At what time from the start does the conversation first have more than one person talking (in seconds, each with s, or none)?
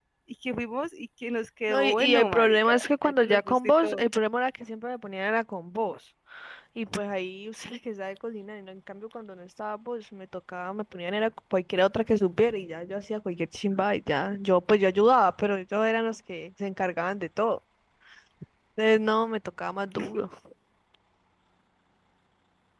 1.7 s